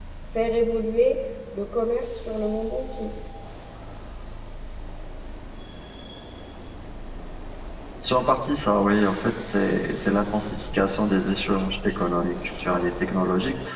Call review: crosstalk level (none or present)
none